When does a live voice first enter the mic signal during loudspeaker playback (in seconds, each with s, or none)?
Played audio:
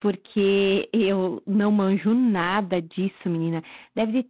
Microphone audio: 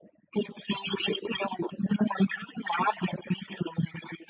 none